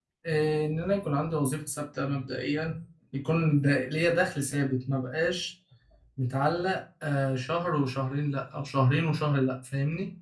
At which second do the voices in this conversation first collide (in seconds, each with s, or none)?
none